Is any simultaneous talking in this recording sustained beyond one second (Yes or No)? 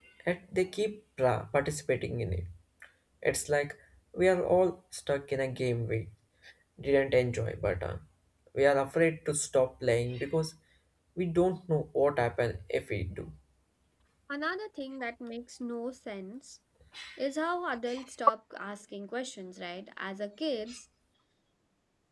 No